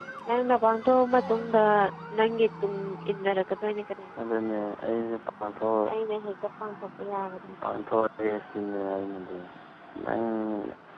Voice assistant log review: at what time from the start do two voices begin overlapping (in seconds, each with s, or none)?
none